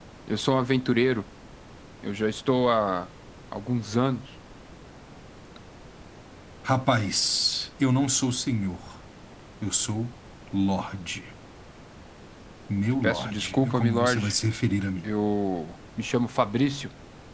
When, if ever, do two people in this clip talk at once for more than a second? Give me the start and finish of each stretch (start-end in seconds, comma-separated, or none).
13.0-14.3